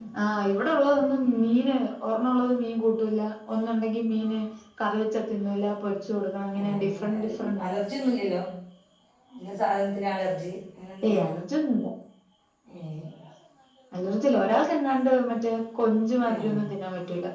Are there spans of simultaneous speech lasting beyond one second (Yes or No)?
Yes